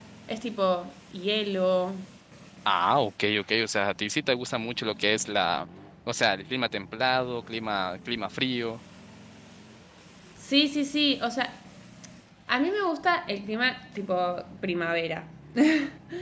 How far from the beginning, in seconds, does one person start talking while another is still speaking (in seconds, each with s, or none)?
none